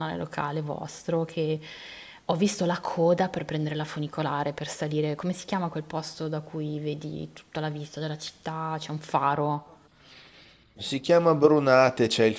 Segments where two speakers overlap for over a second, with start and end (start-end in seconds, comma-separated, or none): none